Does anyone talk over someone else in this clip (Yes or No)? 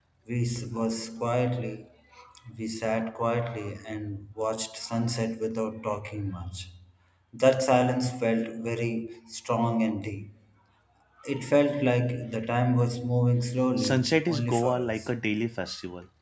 Yes